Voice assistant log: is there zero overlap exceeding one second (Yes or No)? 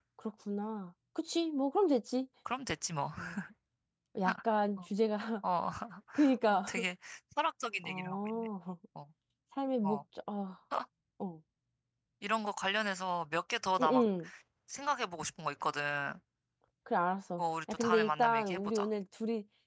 No